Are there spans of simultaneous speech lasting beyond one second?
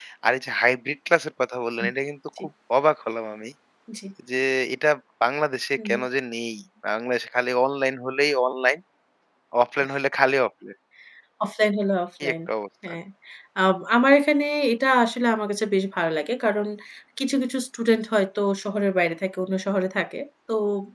No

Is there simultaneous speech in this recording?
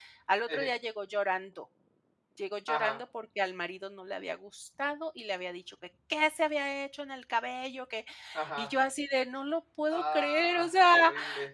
Yes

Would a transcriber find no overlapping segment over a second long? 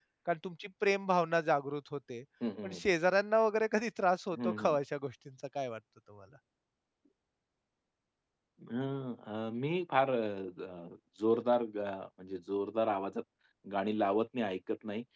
Yes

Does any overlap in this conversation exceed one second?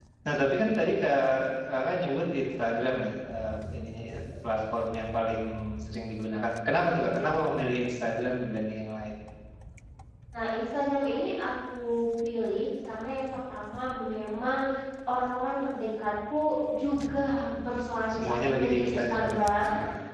Yes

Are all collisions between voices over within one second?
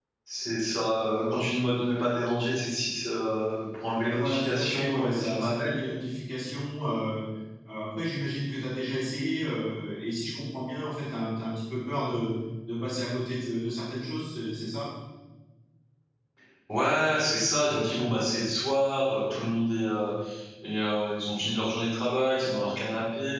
No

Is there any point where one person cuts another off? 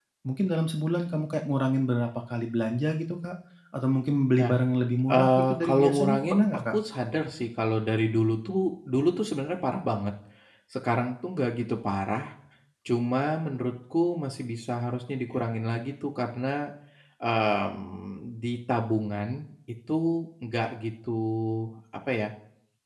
Yes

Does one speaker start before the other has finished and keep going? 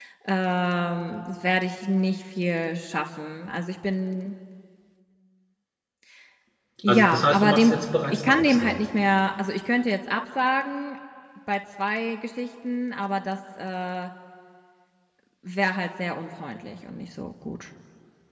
Yes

